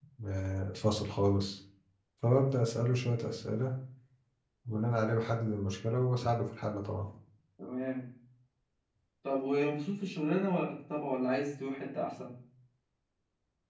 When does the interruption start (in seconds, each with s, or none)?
none